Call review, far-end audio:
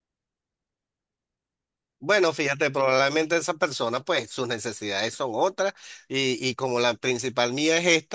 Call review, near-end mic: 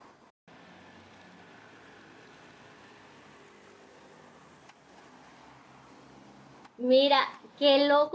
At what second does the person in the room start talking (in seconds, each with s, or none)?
6.8 s